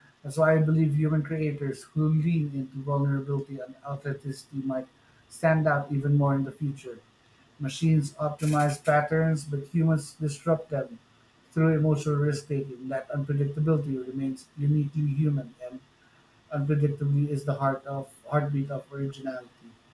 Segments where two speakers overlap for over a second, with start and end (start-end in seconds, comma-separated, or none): none